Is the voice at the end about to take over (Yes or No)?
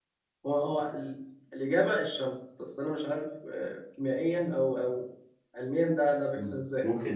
Yes